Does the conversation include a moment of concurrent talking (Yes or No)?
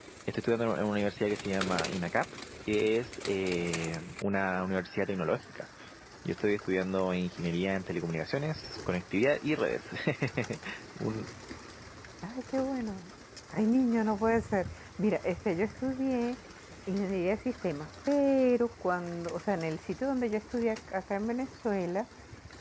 No